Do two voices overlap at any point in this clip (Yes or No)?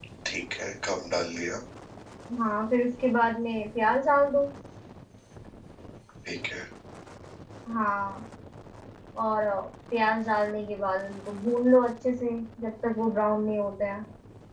No